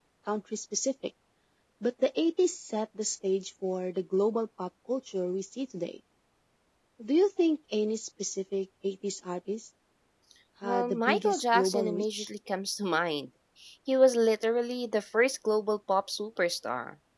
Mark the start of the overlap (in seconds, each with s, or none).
10.6 s